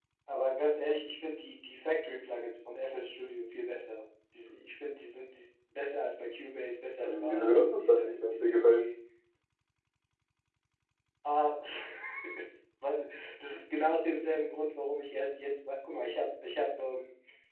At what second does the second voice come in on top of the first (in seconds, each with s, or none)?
7.0 s